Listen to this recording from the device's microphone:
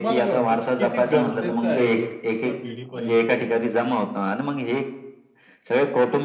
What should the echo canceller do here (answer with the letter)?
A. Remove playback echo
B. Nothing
A